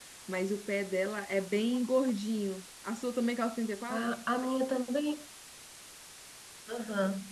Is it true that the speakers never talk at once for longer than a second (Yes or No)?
Yes